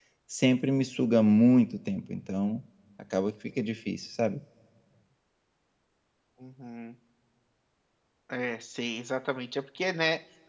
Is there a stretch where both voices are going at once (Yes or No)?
No